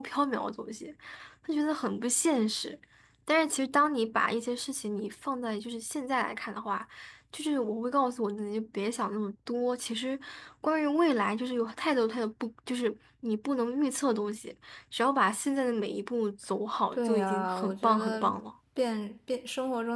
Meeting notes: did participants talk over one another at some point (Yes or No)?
Yes